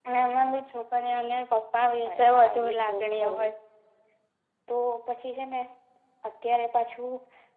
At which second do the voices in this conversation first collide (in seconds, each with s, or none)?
2.0 s